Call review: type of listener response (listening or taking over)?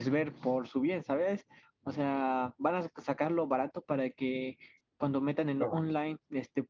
listening